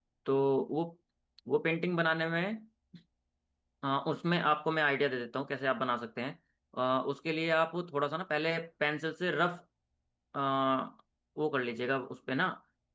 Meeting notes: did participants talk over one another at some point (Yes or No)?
No